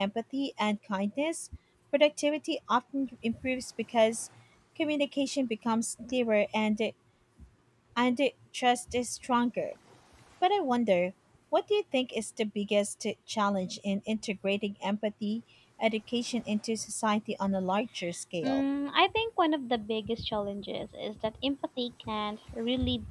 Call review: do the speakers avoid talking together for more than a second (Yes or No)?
Yes